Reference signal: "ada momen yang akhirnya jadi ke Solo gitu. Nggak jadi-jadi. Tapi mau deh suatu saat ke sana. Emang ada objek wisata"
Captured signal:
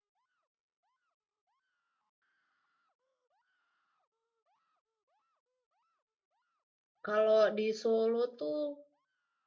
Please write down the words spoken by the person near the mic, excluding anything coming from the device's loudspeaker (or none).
kalau di Solo tuh